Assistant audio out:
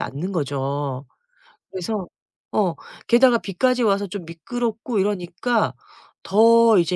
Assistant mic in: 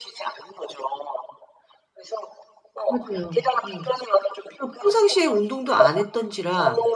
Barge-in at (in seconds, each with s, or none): 2.9 s